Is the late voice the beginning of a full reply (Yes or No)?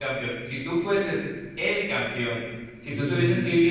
No